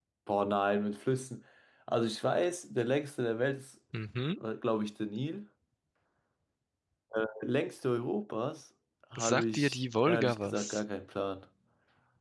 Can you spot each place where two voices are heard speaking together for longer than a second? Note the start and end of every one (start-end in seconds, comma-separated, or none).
9.2-10.8